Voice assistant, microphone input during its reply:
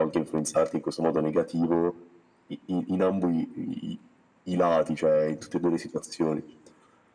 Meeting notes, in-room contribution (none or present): none